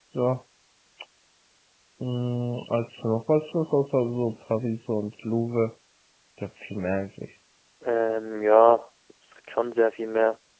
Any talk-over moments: No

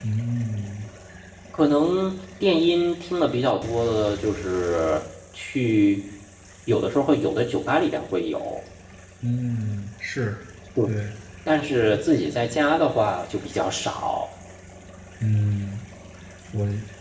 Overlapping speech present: No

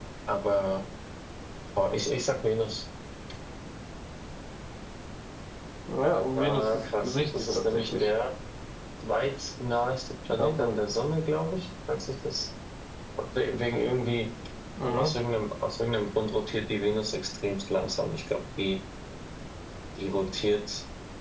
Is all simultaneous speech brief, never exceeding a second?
No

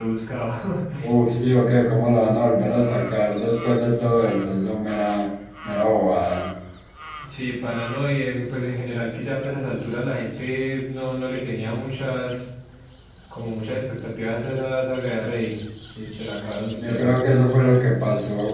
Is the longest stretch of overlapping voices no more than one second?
Yes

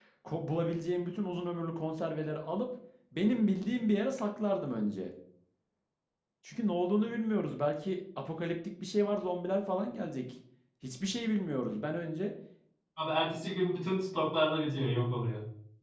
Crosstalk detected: No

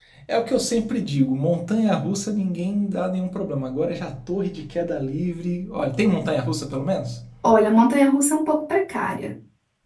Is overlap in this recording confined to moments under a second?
Yes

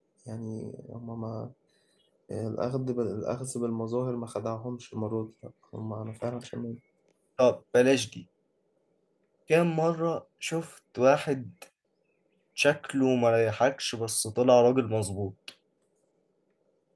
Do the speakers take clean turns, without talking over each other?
Yes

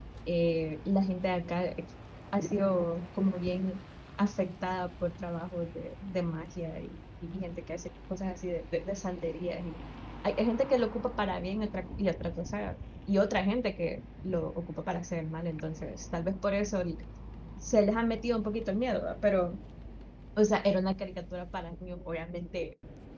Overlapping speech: No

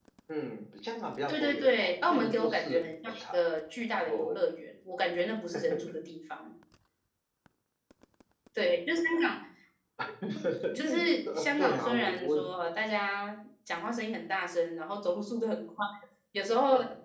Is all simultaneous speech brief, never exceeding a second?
No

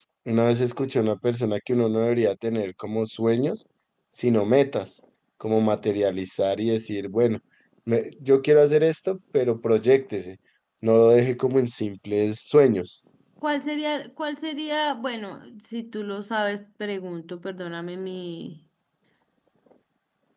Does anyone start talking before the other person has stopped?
No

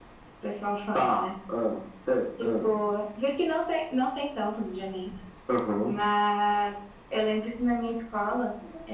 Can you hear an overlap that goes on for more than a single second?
No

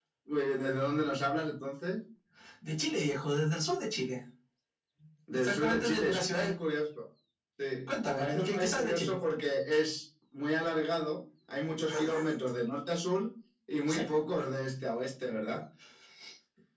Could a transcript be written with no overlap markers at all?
No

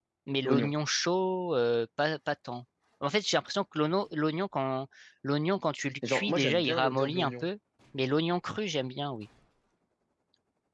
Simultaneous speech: Yes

